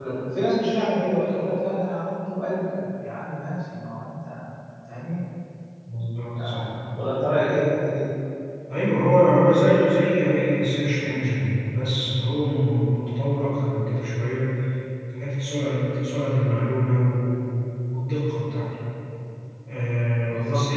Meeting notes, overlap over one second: none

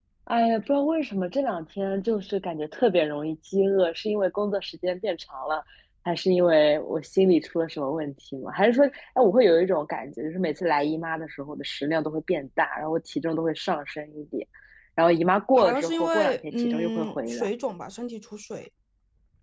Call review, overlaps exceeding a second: present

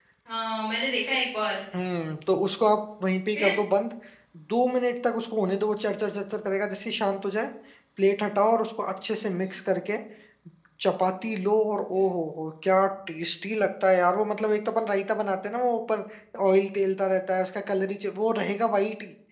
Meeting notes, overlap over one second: none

